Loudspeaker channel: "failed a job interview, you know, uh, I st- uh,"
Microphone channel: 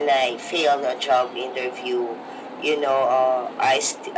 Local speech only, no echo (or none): none